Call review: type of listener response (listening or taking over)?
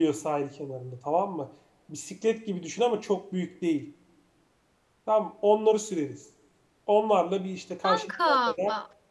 listening